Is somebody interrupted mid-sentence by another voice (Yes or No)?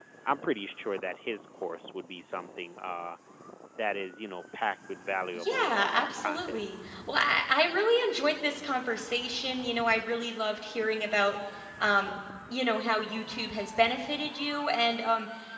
Yes